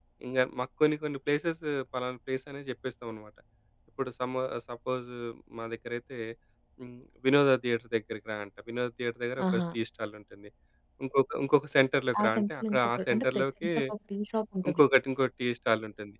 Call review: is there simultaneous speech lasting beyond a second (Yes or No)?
Yes